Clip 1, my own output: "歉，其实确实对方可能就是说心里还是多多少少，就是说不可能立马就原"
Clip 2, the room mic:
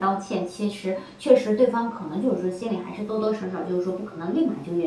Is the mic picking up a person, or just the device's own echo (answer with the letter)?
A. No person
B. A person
A